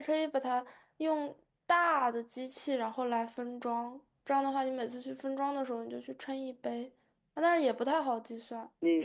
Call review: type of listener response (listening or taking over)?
taking over